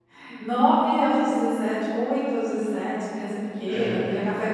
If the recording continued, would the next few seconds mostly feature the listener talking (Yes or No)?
No